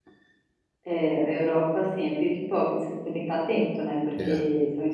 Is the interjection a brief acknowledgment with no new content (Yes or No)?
Yes